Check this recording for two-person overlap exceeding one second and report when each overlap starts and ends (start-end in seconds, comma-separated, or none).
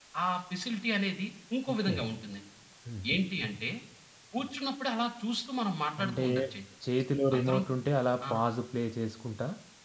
none